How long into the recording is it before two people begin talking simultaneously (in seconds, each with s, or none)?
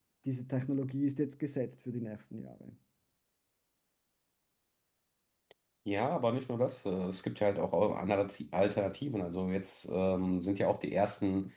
none